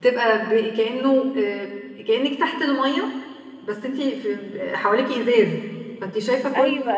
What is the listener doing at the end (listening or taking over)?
taking over